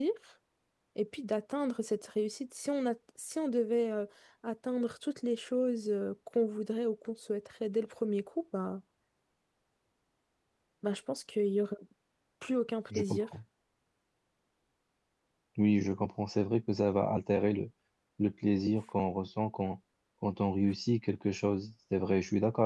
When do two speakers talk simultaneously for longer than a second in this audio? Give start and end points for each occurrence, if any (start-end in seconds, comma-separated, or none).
none